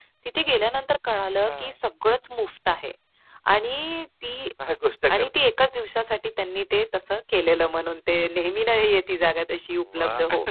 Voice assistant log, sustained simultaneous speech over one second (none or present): none